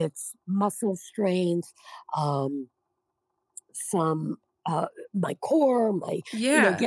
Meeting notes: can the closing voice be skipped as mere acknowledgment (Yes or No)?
Yes